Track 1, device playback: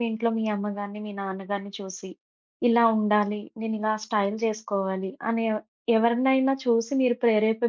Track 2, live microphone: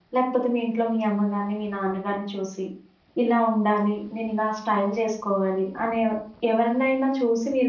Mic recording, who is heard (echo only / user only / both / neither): echo only